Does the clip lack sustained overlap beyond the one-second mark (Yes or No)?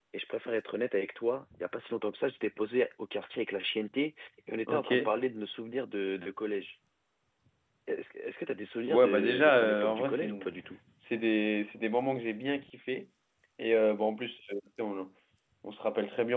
No